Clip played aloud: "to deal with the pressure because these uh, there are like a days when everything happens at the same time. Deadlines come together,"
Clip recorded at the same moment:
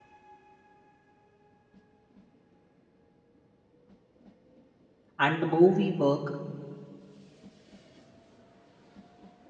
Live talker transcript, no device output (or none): and the more we work,